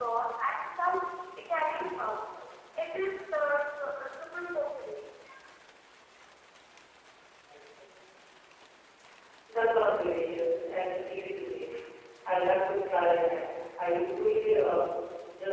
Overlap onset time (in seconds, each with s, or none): none